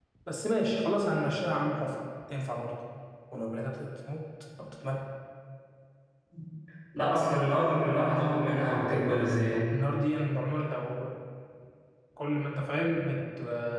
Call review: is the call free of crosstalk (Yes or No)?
Yes